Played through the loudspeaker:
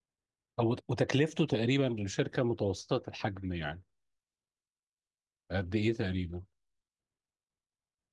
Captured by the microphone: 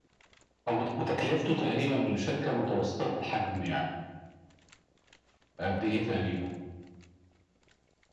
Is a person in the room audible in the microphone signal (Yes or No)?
No